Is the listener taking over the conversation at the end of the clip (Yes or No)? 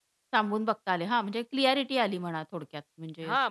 Yes